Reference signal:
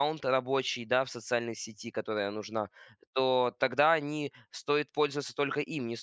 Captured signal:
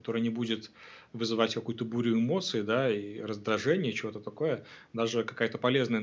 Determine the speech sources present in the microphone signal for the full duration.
user only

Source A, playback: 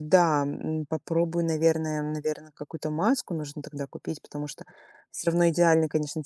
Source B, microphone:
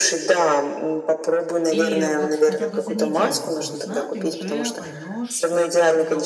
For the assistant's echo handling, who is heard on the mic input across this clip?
both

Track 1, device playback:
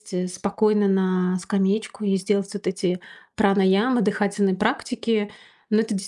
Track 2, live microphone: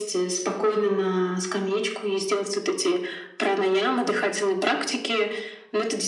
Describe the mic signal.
echo only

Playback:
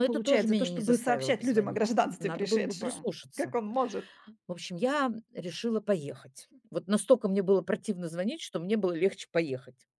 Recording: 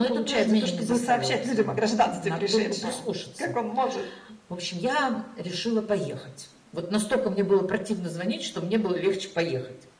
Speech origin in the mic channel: echo only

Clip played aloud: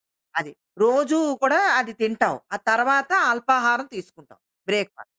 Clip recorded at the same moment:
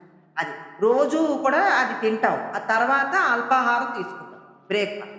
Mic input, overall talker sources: echo only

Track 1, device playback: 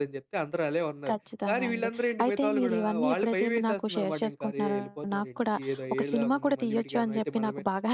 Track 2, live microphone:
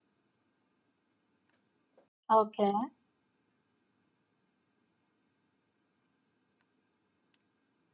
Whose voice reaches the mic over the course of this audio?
user only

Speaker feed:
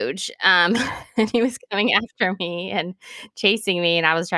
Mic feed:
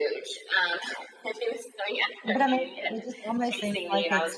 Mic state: both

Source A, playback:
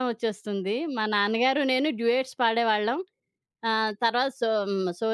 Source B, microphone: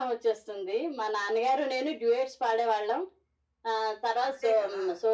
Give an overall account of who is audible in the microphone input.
both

